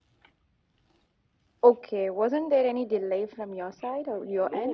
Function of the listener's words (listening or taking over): taking over